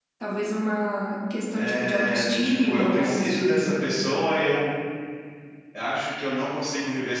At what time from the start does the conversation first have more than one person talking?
1.6 s

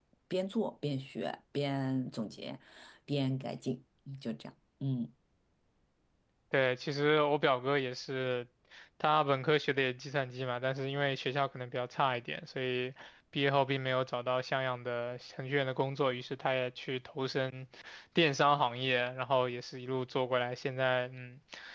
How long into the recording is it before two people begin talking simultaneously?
none

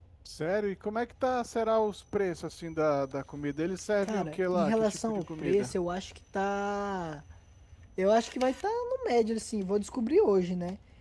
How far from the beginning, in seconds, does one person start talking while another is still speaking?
4.0 s

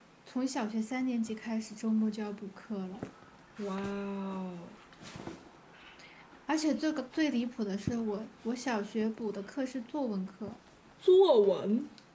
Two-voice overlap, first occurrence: none

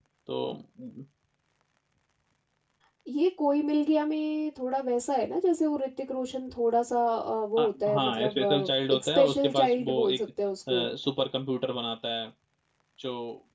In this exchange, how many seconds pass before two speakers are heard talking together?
7.6 s

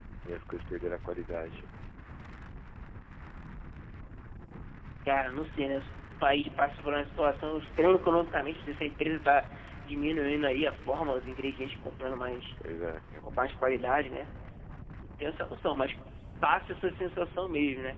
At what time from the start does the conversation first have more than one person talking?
none

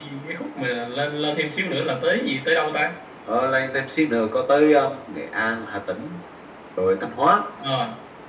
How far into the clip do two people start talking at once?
none

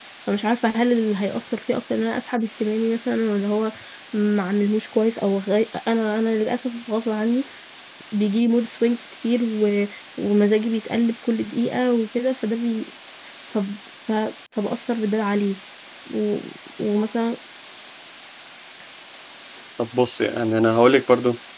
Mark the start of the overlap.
none

